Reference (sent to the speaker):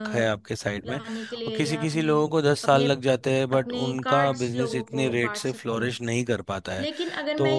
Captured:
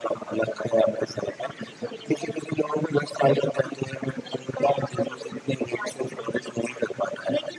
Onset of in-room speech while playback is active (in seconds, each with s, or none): none